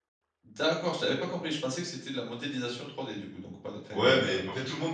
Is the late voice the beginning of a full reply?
Yes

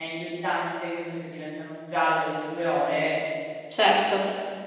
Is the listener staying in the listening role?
No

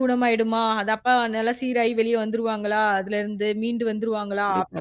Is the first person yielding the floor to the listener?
No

